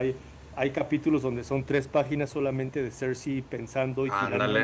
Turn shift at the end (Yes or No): No